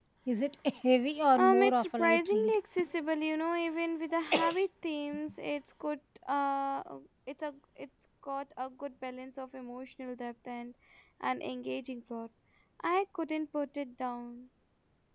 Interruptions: present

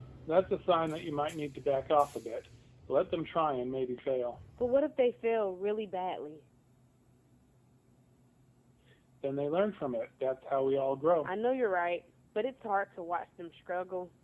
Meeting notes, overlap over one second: none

